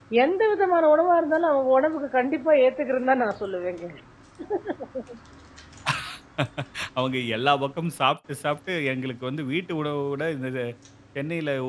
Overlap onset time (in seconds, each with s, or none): none